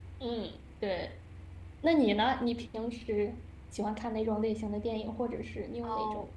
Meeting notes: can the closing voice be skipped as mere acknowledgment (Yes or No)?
No